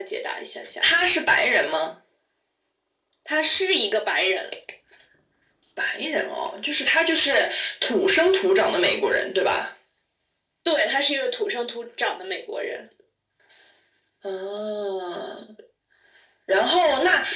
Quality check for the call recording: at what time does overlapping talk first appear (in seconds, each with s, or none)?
none